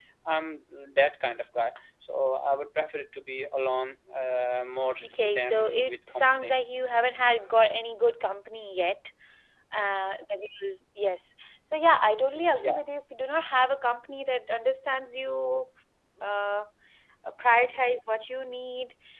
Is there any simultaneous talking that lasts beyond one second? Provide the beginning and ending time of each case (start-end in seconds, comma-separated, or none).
5.2-6.5